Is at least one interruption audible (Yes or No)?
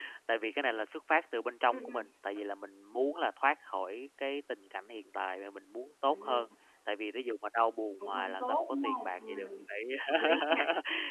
Yes